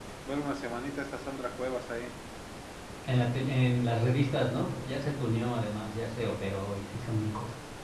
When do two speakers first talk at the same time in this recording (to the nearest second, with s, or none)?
none